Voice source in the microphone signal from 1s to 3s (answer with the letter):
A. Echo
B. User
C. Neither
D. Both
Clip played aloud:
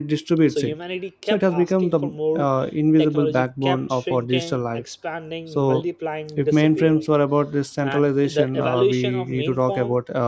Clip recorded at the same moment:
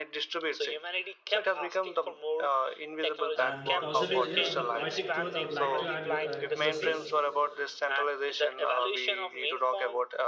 A